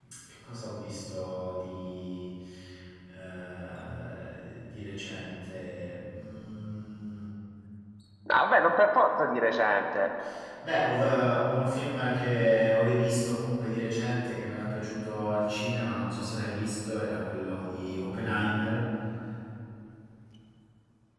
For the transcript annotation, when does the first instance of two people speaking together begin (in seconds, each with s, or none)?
none